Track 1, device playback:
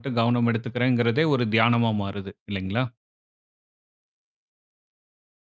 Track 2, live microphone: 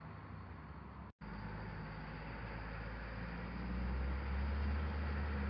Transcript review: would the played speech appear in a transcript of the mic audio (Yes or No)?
No